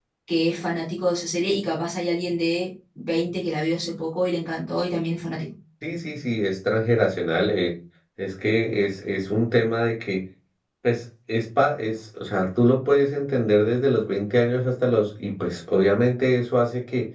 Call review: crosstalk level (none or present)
none